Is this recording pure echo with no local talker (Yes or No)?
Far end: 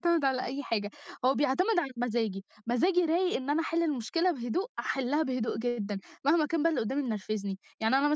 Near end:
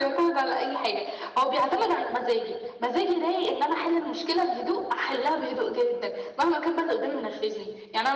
Yes